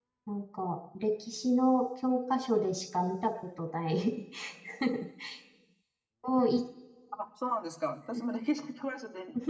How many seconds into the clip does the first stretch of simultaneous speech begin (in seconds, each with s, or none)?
none